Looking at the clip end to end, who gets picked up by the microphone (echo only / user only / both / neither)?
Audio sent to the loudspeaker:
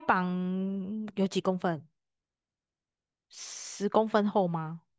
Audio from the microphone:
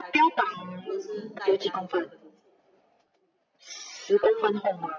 both